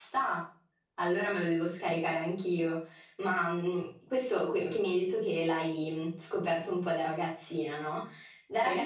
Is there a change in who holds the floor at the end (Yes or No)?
No